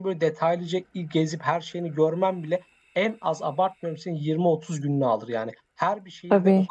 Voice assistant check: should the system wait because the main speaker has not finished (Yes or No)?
Yes